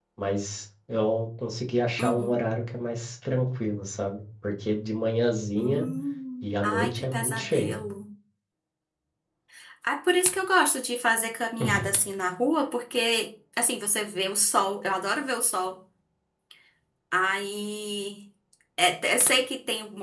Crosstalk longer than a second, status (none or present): present